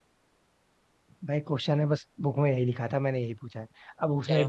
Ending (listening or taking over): listening